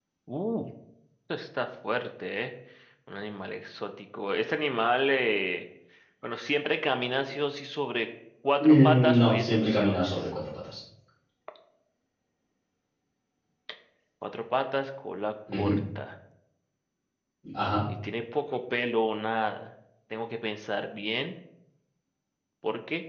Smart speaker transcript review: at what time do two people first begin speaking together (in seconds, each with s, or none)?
8.6 s